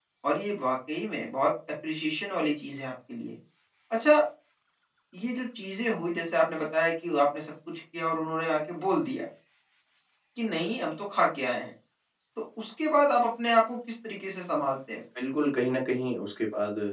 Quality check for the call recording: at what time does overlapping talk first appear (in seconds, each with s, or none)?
none